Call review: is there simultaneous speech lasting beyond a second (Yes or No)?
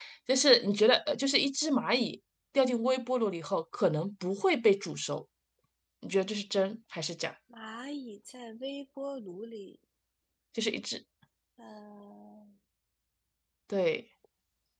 No